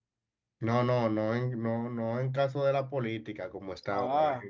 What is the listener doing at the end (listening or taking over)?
listening